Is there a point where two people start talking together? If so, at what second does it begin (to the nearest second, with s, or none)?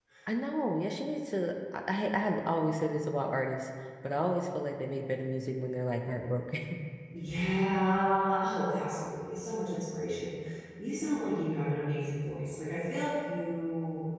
none